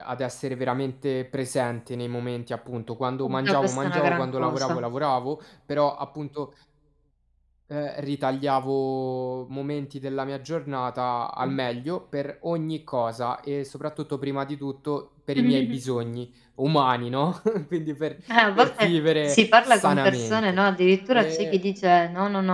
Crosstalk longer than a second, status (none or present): present